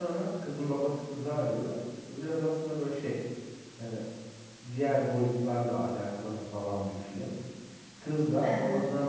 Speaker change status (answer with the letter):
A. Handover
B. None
B